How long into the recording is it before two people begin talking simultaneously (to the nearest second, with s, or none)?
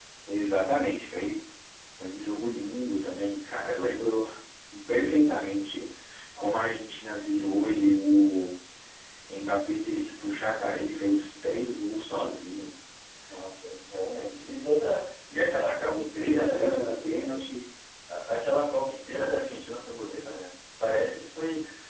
16 s